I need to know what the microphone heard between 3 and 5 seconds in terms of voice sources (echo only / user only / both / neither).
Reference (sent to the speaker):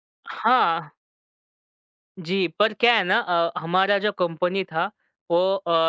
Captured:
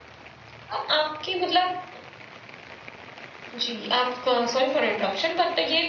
user only